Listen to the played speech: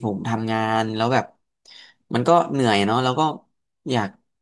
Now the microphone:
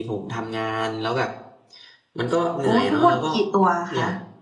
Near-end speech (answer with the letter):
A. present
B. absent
A